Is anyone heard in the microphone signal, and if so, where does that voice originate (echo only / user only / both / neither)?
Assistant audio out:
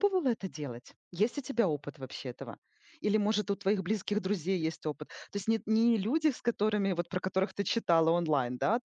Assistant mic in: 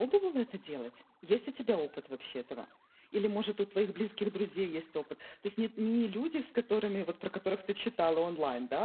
echo only